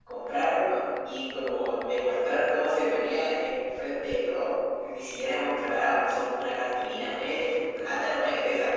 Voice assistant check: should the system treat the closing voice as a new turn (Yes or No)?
No